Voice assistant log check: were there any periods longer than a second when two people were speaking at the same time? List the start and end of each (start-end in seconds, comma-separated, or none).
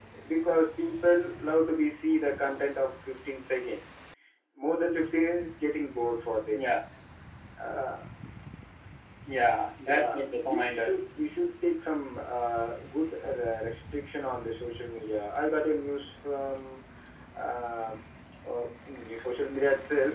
9.9-11.1